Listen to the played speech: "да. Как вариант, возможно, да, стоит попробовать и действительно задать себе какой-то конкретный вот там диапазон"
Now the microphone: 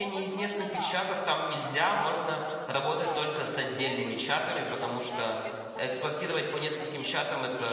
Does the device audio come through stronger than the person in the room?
No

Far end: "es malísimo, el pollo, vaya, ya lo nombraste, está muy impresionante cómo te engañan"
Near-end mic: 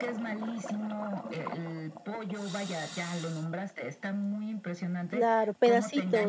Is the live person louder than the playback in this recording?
Yes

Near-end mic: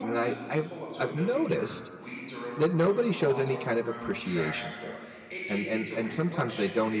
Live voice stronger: Yes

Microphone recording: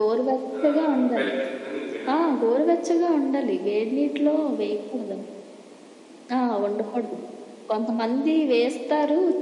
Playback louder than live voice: Yes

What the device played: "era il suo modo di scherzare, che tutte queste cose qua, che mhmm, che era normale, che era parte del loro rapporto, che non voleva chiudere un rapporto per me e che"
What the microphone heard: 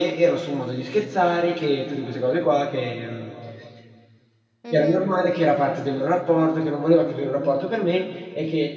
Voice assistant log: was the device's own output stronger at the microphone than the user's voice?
Yes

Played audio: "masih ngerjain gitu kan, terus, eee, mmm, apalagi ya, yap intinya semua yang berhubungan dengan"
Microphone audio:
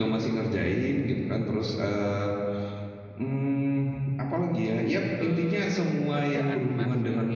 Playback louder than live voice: Yes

